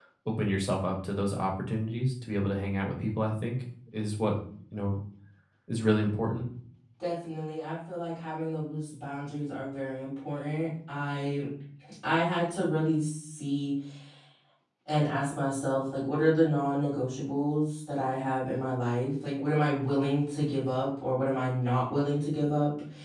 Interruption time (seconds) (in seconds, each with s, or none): none